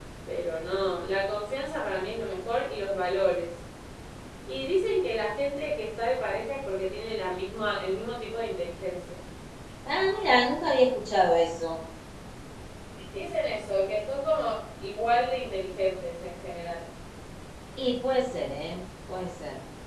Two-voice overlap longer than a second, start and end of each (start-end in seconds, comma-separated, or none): none